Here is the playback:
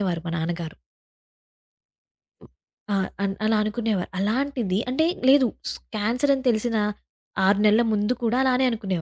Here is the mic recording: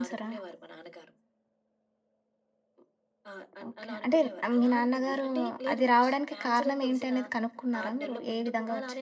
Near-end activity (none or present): present